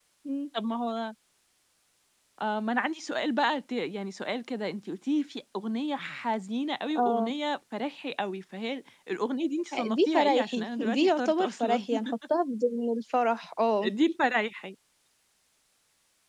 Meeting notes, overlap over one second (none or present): present